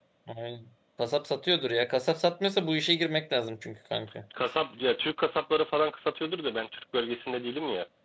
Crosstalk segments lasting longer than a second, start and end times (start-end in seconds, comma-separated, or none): none